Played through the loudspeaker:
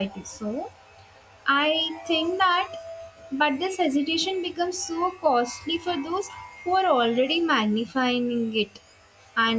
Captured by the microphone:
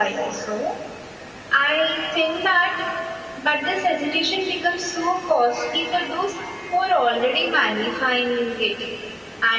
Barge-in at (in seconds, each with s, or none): none